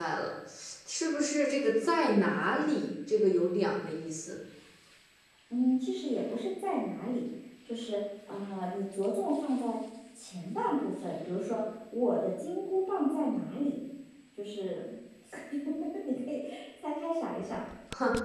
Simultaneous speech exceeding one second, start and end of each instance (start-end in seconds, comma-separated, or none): none